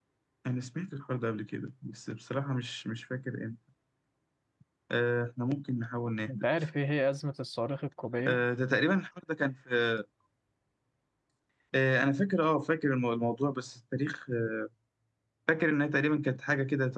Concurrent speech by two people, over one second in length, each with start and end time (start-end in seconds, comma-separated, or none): none